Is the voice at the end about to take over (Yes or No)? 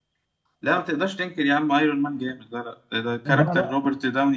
No